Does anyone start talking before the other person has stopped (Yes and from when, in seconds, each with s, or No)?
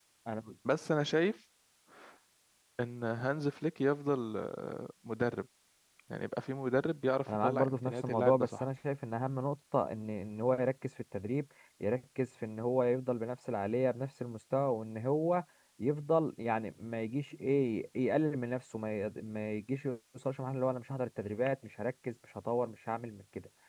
Yes, from 7.3 s